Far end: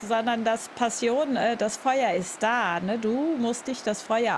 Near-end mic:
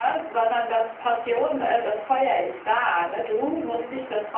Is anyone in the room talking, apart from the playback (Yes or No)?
No